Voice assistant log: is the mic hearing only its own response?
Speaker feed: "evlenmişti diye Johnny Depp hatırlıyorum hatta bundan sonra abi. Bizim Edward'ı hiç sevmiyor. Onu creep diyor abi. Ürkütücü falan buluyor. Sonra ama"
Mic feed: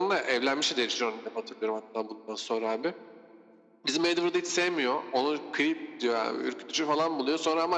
Yes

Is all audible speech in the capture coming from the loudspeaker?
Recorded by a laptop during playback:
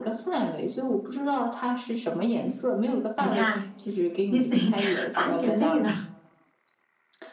No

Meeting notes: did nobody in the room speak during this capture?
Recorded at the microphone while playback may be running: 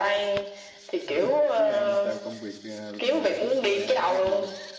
No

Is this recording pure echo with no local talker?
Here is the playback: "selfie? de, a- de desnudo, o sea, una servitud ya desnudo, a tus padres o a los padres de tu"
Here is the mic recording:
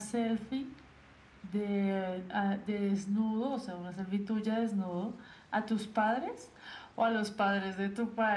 Yes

